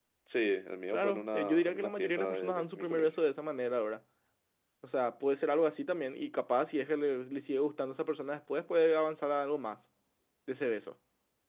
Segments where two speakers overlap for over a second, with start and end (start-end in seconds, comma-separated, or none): 0.9-3.1